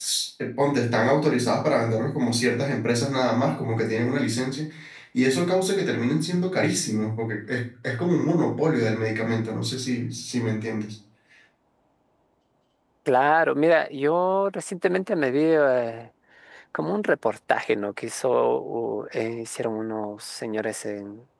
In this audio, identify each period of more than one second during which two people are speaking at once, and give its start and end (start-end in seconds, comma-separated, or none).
none